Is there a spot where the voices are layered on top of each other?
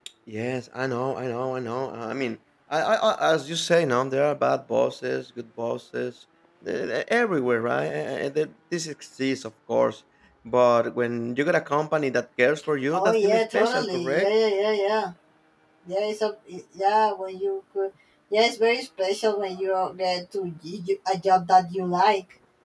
Yes, from 12.9 s

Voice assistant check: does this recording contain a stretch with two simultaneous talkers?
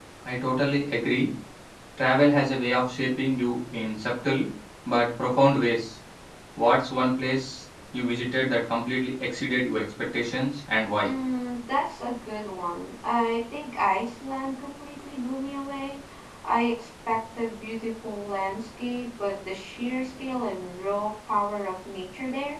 No

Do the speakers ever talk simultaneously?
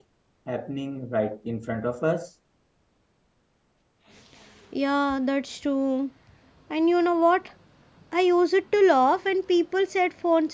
No

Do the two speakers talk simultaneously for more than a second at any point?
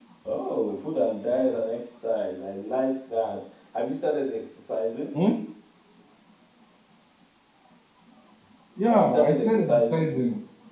Yes, from 8.9 s

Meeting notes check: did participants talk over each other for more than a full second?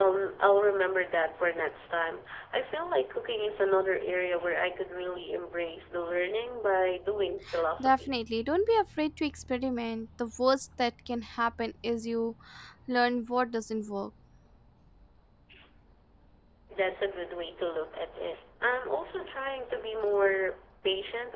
No

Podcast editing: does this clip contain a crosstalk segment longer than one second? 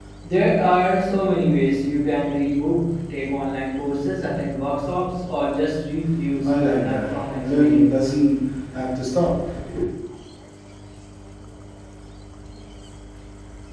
Yes, from 6.3 s

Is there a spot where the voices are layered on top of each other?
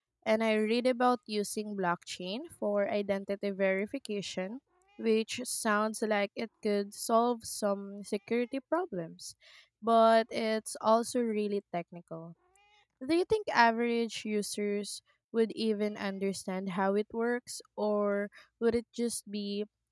No

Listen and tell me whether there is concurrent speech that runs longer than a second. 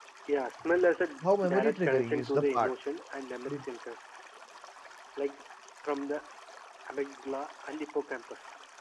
Yes, from 1.2 s

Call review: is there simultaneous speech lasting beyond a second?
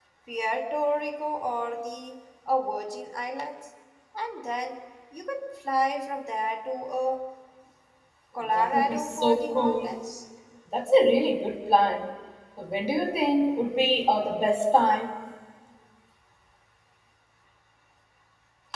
Yes, from 8.6 s

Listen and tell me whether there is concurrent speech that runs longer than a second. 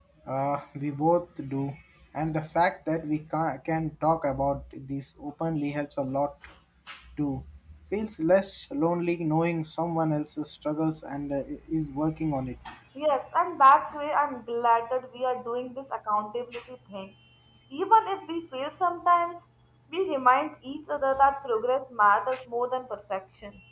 No

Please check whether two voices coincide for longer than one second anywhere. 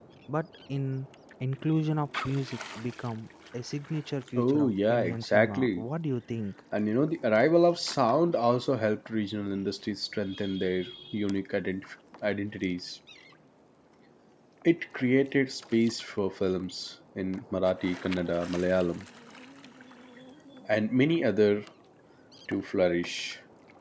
Yes, from 4.4 s

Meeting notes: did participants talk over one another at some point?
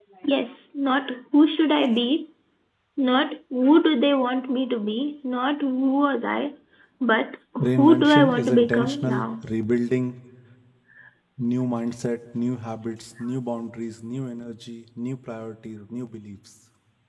Yes, from 7.8 s

